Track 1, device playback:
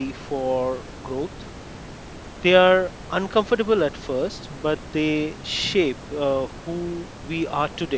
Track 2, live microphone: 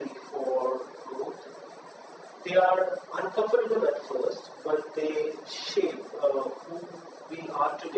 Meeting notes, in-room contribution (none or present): none